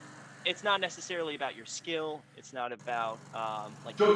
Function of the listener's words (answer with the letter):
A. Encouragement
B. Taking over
B